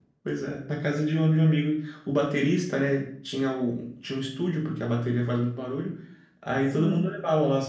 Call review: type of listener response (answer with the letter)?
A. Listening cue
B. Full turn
A